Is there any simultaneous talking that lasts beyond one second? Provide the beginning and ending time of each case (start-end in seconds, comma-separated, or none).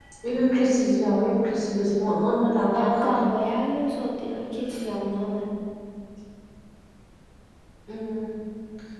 none